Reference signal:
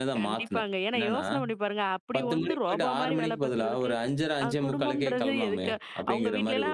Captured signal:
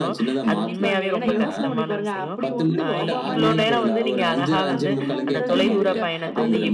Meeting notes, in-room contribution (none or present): present